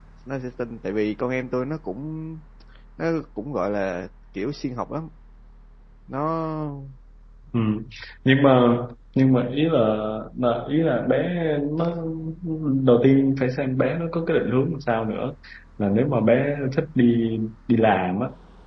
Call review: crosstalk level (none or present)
none